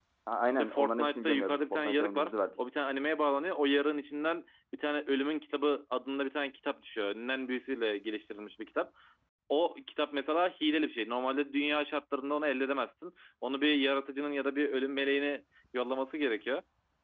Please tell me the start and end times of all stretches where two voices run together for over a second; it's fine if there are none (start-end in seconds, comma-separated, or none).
0.6-2.6